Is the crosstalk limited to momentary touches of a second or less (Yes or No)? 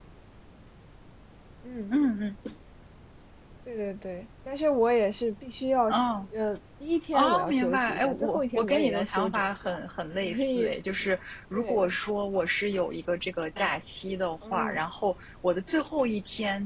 No